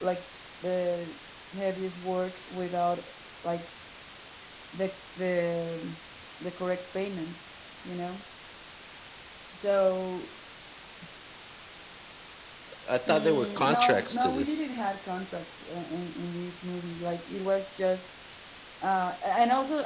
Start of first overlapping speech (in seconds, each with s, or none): 13.1 s